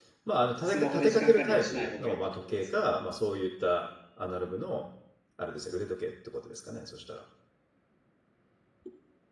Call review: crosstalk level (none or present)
present